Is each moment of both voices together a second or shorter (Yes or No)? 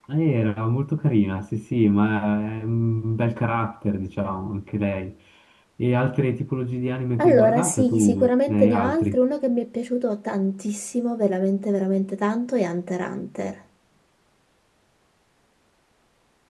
No